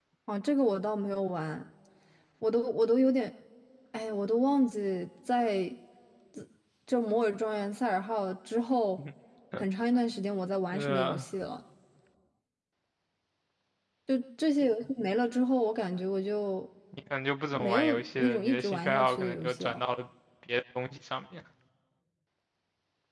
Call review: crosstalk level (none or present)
present